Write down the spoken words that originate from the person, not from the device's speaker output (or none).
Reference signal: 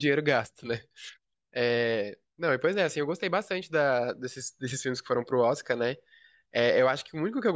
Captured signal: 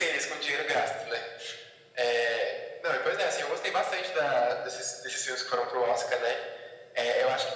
none